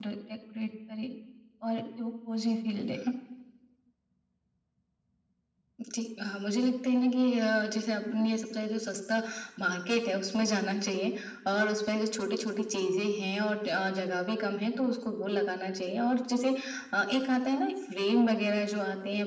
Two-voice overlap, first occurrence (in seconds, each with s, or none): none